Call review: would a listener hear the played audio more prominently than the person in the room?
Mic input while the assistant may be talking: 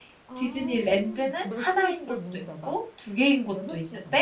No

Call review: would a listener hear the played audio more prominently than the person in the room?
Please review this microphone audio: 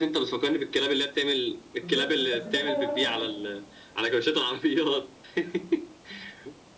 Yes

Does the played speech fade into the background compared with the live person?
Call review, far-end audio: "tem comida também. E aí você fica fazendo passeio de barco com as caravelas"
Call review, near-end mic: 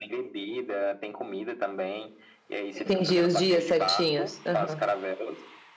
Yes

